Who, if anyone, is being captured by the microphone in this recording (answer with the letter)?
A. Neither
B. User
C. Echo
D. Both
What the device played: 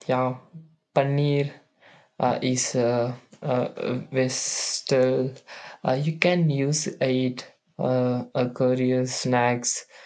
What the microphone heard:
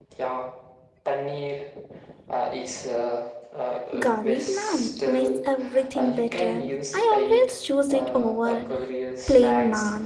D